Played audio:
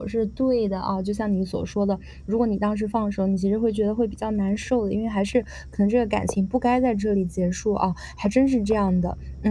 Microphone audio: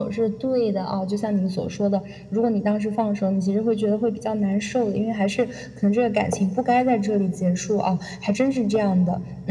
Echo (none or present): present